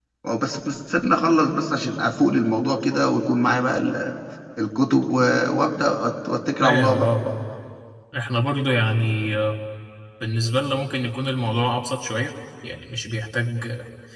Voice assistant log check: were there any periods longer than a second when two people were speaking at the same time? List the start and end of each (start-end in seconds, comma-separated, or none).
none